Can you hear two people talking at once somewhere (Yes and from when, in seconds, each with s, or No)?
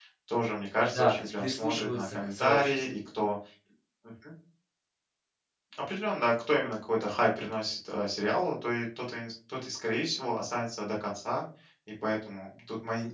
Yes, from 0.8 s